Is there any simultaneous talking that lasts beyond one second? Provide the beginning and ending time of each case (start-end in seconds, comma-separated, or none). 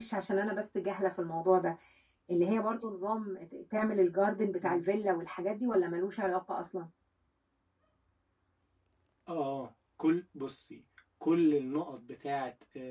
none